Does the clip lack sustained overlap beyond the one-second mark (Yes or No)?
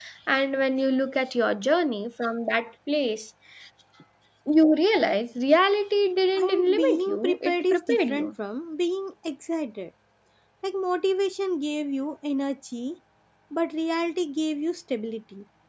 No